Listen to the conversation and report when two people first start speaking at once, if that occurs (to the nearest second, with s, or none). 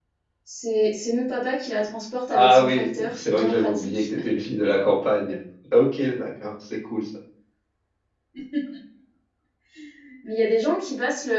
2 s